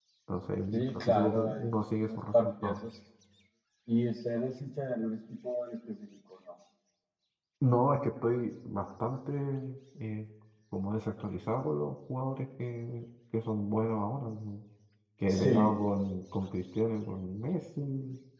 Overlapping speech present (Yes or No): Yes